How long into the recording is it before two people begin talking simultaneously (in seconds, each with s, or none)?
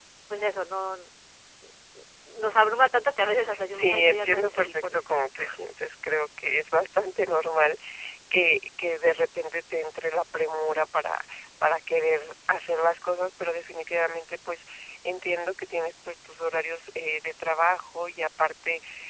3.5 s